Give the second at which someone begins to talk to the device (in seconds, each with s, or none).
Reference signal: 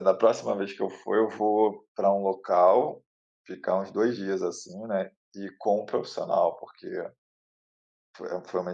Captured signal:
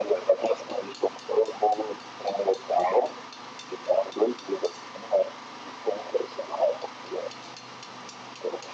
none